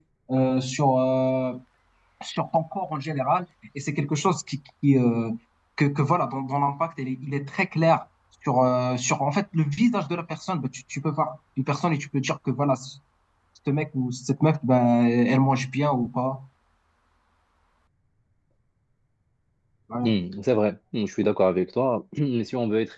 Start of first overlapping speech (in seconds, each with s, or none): none